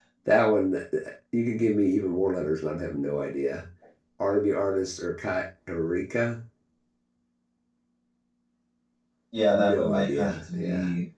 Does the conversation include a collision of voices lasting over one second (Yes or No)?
Yes